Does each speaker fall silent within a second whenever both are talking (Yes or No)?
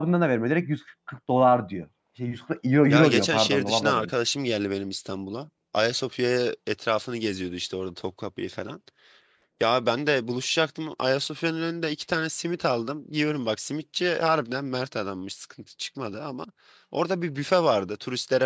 No